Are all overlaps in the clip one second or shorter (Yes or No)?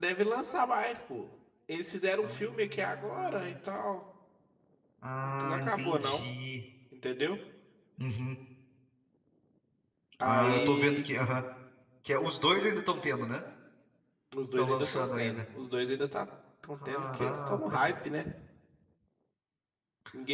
No